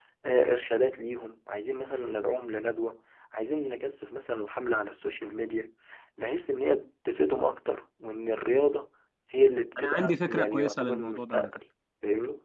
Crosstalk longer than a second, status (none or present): present